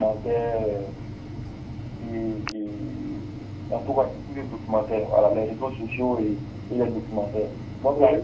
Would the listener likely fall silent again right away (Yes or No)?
Yes